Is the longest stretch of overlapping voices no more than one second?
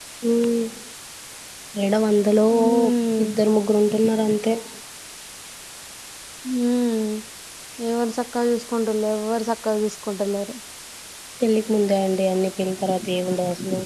Yes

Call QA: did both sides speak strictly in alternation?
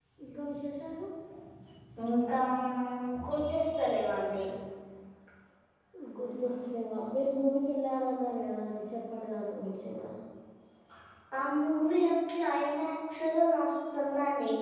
Yes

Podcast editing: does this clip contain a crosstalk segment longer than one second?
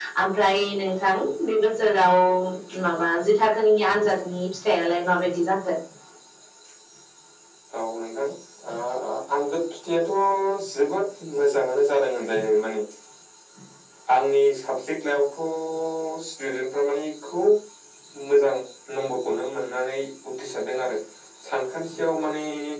No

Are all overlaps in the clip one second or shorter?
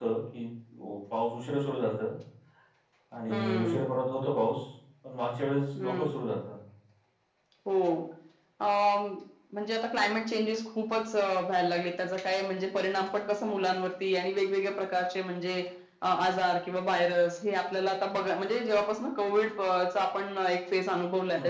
Yes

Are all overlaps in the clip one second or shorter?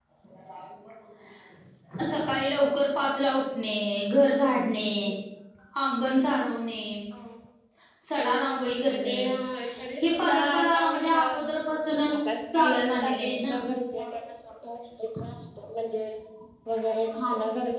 No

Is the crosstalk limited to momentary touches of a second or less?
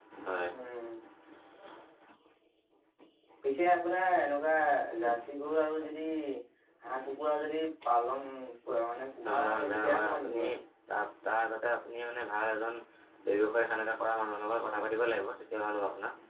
No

